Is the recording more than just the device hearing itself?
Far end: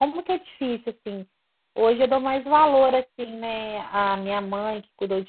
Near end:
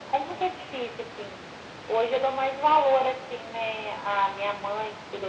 No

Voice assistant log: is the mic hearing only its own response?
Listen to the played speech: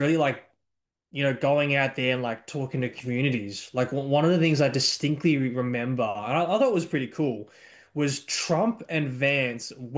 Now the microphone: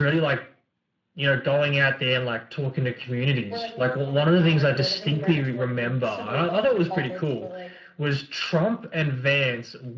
No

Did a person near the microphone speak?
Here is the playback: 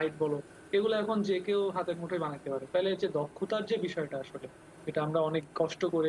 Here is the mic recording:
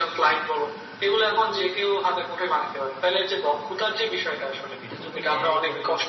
Yes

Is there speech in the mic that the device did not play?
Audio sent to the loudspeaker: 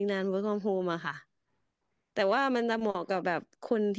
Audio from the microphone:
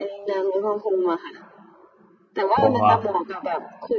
Yes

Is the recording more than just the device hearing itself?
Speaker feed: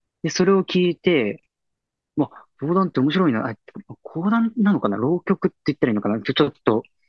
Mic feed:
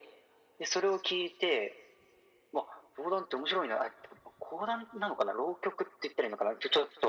No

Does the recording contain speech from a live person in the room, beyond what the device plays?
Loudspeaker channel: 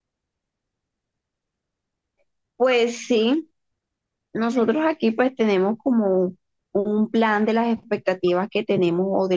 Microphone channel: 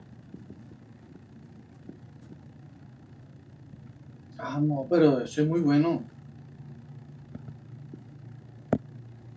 Yes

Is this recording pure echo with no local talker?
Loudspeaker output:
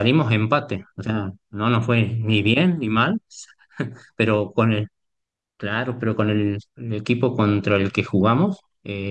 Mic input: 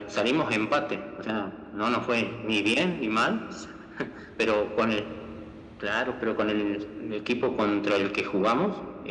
Yes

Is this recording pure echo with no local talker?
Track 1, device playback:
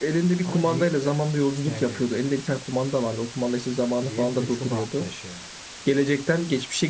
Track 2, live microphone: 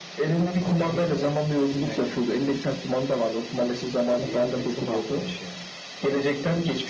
Yes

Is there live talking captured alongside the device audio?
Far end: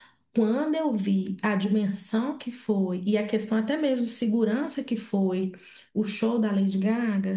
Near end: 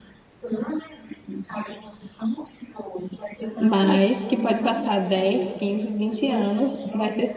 Yes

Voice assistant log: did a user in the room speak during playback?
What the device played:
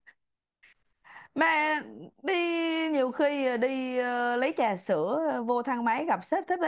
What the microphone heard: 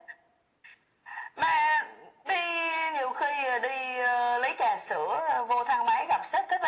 No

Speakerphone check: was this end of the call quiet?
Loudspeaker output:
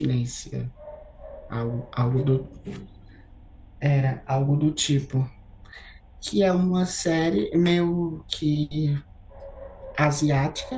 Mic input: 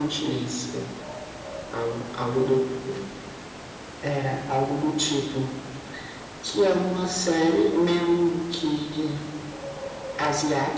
Yes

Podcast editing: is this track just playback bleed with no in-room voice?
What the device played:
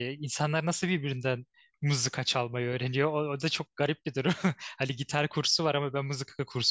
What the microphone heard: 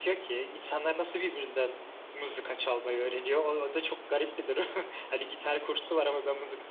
Yes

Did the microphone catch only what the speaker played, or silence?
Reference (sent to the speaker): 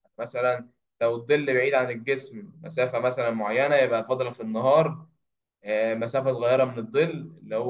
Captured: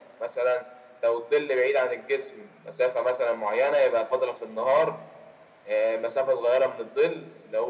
Yes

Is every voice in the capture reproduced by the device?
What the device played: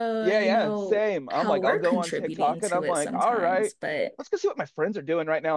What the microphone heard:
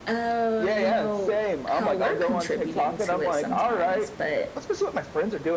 Yes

